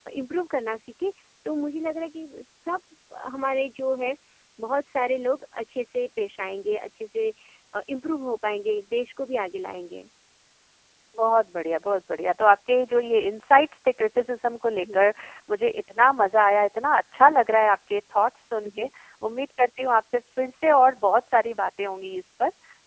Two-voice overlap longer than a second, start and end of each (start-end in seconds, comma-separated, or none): none